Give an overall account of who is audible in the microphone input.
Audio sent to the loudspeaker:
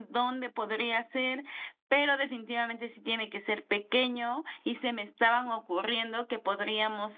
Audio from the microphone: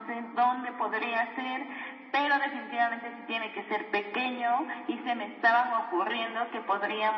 echo only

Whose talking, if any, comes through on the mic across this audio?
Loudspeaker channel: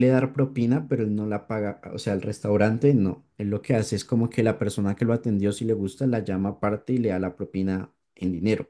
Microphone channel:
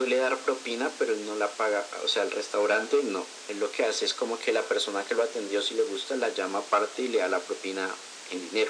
echo only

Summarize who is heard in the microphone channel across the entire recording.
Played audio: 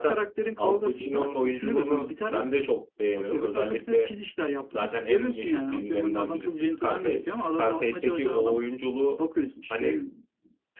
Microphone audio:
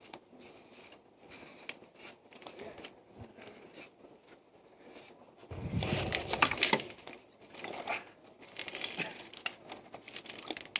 neither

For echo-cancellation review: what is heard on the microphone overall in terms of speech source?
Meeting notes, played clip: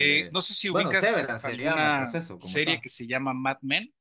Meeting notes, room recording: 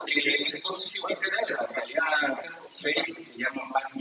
echo only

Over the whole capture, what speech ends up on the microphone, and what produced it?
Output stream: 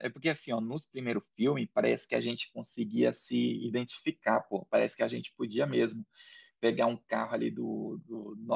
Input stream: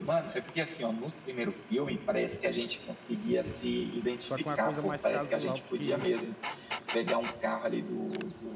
both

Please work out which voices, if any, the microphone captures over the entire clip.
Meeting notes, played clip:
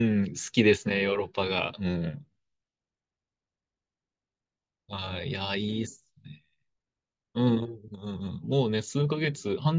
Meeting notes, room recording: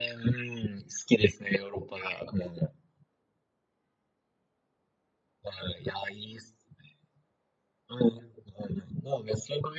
echo only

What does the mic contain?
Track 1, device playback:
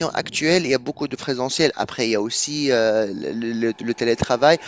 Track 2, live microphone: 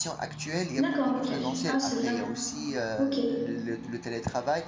both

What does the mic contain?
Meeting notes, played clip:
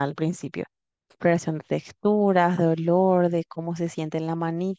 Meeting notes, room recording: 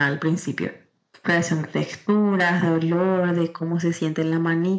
echo only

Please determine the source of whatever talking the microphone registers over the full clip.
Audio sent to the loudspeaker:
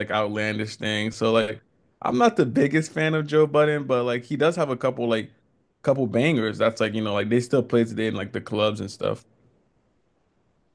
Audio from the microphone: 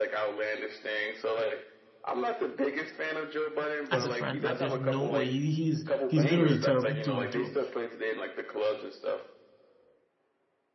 both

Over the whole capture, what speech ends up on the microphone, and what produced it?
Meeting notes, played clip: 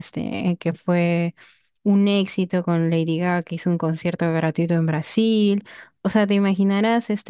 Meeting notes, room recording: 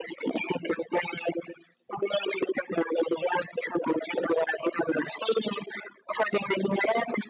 echo only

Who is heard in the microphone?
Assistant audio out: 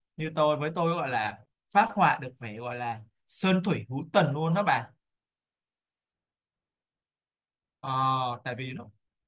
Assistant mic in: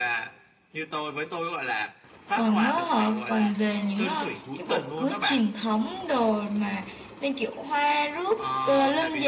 both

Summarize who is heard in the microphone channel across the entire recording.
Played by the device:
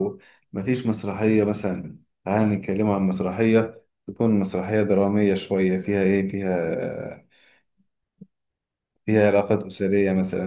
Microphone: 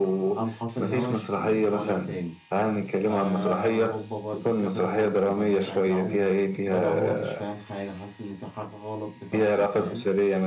both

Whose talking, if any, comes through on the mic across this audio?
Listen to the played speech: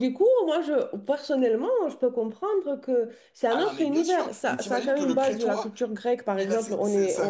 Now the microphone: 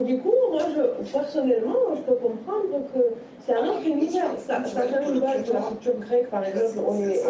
echo only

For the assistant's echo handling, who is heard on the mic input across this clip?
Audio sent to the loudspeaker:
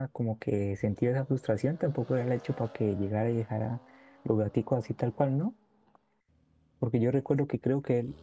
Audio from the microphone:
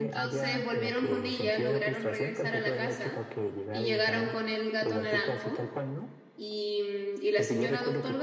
both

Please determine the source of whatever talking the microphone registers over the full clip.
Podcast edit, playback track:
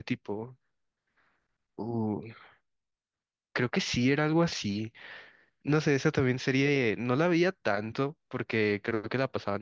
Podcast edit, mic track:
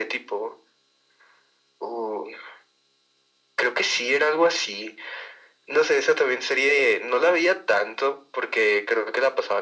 echo only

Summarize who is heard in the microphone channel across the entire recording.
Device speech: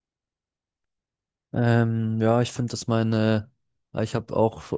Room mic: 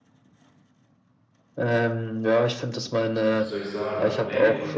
both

